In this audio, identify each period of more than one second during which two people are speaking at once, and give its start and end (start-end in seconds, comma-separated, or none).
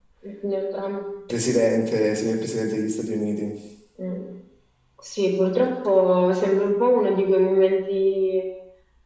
none